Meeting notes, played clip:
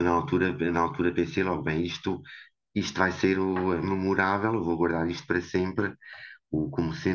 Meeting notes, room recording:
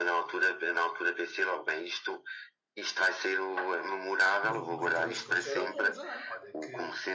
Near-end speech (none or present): present